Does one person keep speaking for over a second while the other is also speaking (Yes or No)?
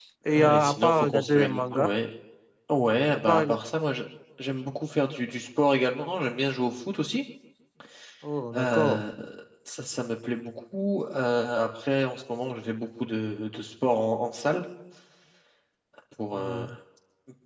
Yes